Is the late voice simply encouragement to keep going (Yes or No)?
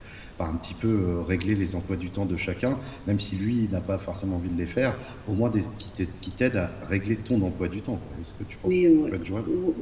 No